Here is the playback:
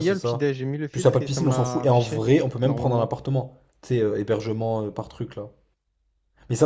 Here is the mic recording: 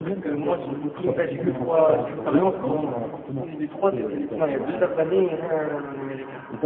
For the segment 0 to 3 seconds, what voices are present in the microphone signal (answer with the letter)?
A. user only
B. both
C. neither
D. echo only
B